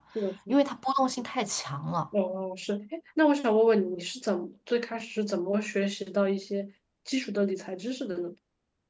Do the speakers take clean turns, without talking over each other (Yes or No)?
Yes